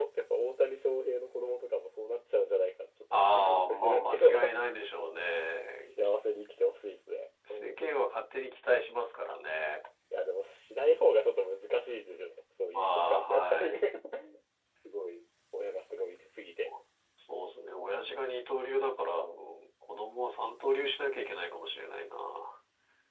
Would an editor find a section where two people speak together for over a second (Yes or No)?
Yes